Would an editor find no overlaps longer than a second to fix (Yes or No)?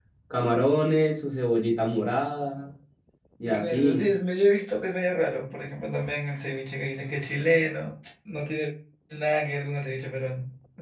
Yes